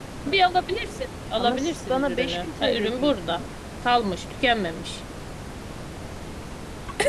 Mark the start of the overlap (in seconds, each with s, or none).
1.4 s